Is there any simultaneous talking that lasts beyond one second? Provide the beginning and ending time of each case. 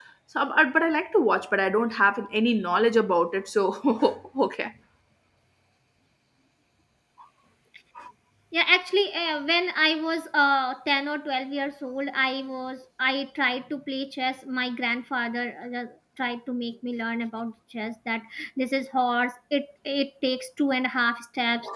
none

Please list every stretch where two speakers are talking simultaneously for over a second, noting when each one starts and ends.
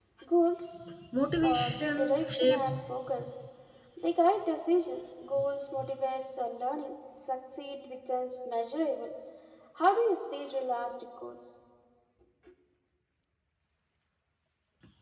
1.4-2.8

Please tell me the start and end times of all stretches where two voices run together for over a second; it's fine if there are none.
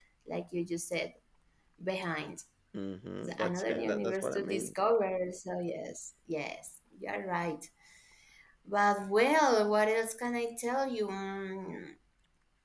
3.2-4.7

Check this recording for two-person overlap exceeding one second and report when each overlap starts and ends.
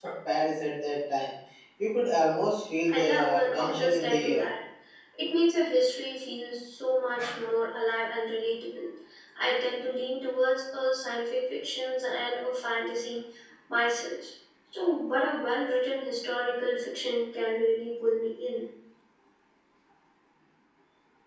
2.9-4.4

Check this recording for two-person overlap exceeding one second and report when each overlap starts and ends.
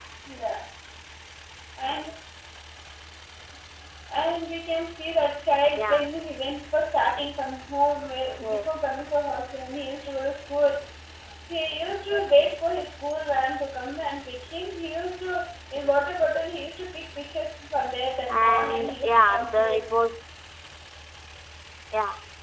18.4-19.8

